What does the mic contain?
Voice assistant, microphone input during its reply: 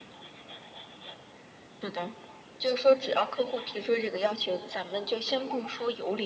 echo only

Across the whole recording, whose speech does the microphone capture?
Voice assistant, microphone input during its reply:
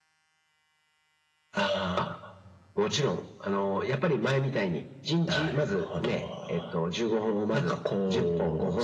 echo only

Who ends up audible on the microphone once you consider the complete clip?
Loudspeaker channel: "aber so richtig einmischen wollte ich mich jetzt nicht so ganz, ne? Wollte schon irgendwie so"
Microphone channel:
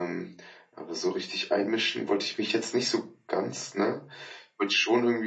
echo only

